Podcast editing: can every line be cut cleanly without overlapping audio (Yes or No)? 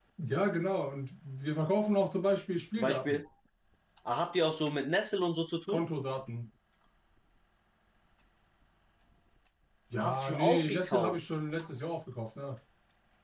No